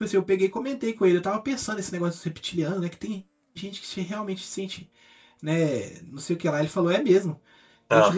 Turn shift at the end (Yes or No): No